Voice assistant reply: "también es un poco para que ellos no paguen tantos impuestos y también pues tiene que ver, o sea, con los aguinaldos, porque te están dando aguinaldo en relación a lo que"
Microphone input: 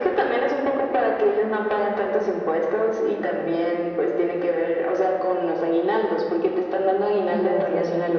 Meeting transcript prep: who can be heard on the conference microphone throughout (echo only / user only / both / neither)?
both